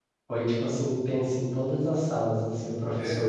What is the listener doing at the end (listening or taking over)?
listening